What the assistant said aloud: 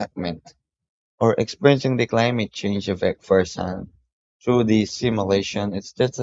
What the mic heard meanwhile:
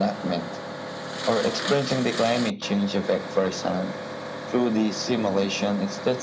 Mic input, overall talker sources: echo only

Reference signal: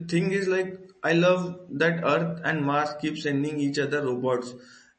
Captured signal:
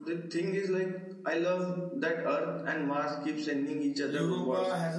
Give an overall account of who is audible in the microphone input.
both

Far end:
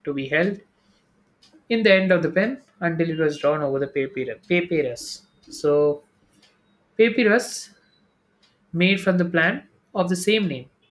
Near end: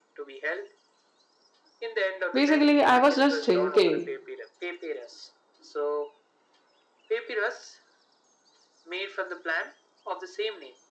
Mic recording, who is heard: both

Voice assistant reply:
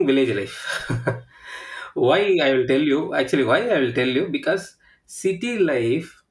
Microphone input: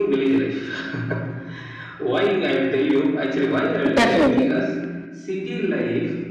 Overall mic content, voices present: both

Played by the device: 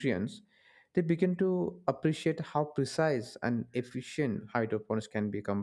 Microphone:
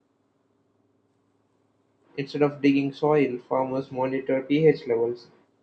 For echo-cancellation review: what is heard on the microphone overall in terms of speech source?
user only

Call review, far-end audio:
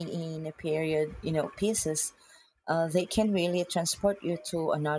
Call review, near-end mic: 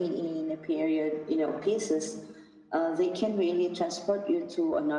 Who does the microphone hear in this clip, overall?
echo only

